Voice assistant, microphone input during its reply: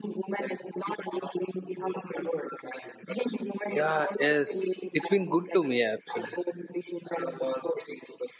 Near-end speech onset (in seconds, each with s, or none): 3.8 s